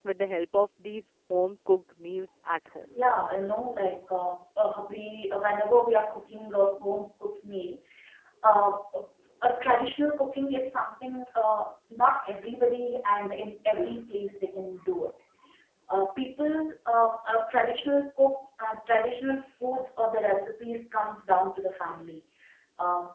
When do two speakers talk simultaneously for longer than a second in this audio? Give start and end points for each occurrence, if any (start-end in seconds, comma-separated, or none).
none